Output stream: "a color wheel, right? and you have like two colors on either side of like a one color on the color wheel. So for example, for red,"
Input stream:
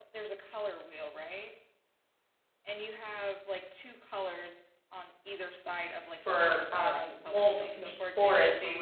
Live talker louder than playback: Yes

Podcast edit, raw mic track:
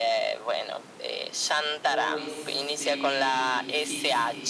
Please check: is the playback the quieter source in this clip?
No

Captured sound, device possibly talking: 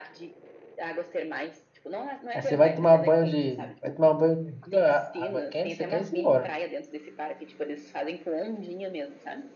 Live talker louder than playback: Yes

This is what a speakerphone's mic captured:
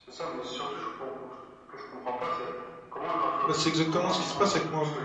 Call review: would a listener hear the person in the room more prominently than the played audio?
Yes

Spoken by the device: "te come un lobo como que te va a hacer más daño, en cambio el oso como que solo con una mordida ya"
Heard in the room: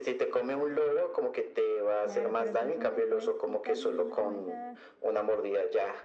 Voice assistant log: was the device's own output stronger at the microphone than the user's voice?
Yes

